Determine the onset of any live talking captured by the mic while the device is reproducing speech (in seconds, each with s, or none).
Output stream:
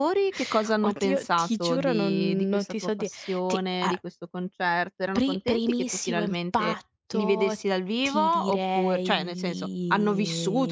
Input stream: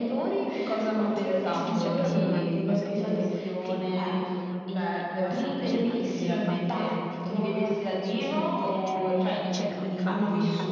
1.4 s